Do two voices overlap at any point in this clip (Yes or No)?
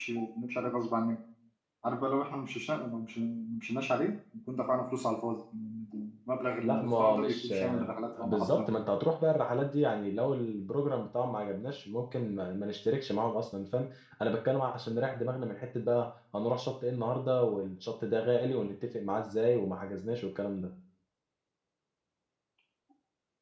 Yes